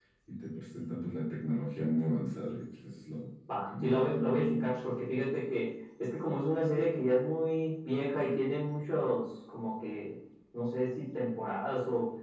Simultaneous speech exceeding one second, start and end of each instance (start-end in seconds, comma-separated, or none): 3.5-4.7